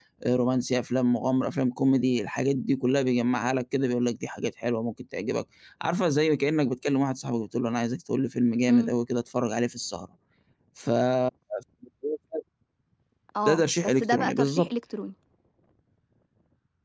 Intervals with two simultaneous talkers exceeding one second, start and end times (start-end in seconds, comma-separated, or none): 13.5-14.7